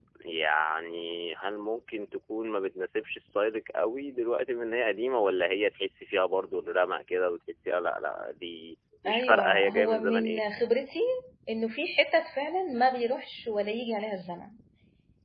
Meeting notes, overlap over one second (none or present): present